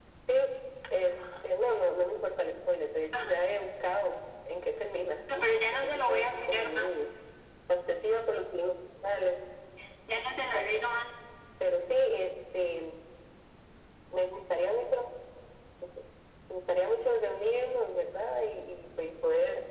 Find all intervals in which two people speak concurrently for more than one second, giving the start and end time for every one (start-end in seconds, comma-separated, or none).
5.7-7.0